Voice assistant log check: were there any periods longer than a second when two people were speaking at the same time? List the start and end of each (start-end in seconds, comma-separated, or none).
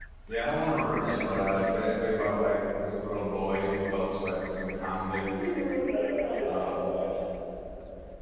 none